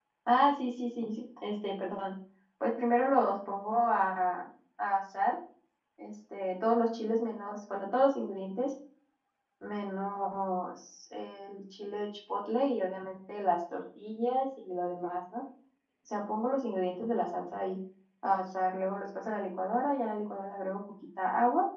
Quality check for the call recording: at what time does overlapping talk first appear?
none

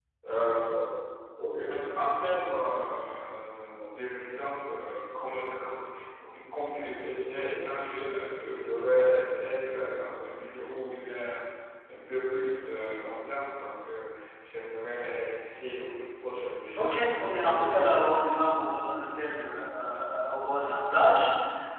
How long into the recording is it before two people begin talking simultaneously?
16.8 s

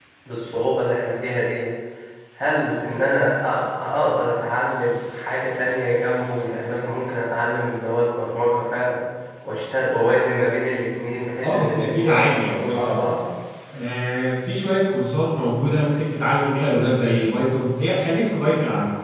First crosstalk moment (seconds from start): 11.4 s

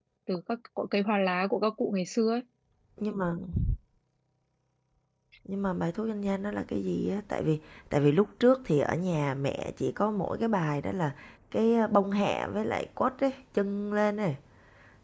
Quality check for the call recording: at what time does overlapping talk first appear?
none

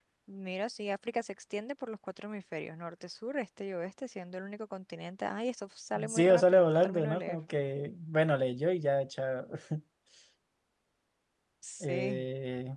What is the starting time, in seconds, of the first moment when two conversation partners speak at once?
6.1 s

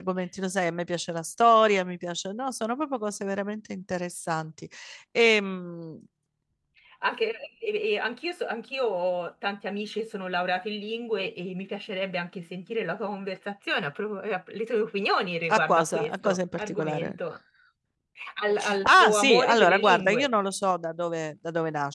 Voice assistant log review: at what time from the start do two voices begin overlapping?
15.5 s

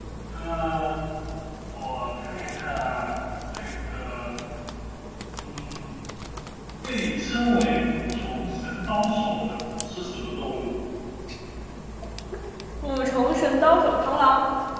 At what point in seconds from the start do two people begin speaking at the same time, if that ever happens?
none

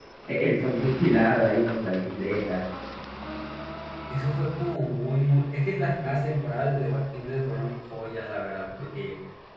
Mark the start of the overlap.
none

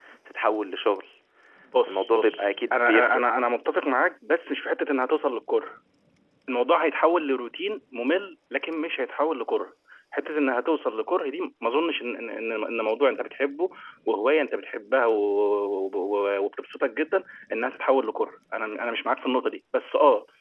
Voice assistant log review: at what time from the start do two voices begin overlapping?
1.9 s

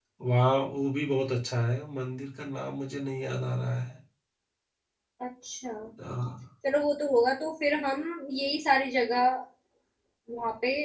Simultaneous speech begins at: none

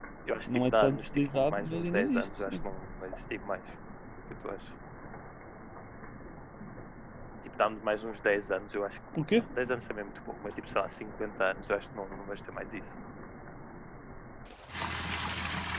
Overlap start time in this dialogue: 0.7 s

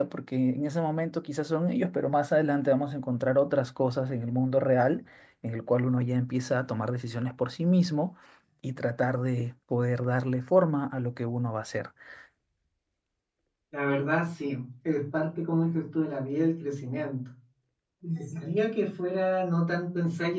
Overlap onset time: none

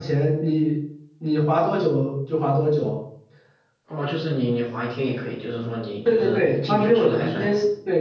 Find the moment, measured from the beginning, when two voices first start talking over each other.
6.0 s

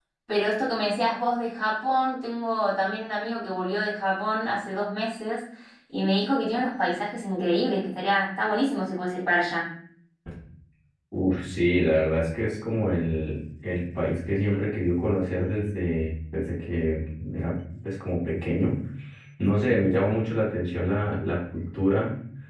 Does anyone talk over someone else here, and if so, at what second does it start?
none

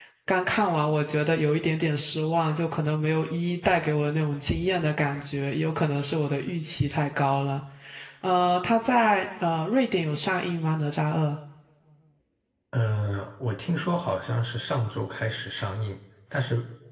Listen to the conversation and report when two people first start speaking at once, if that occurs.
none

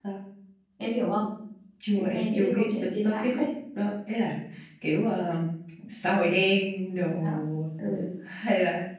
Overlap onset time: 2.0 s

